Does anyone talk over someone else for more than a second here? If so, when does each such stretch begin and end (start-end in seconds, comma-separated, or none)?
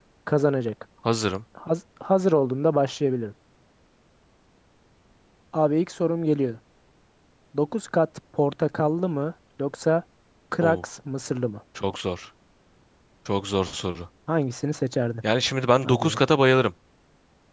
none